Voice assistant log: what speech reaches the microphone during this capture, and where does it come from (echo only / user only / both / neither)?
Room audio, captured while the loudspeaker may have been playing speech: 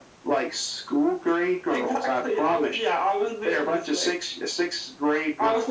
echo only